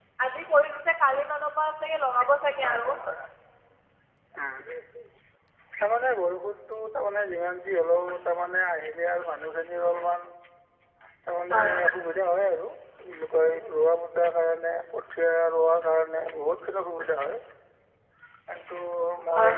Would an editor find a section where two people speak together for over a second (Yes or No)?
No